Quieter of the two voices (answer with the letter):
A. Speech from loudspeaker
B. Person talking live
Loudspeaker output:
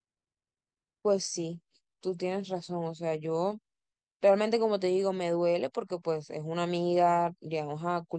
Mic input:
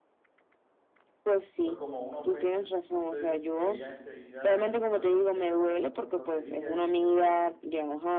B